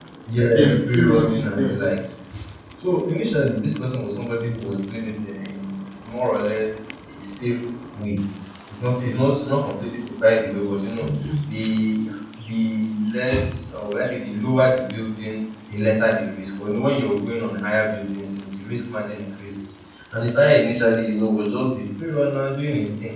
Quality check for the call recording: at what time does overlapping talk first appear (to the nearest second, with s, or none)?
1 s